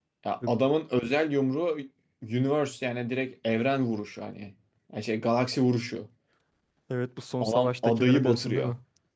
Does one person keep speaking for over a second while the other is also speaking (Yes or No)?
Yes